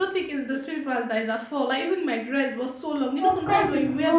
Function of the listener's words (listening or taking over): taking over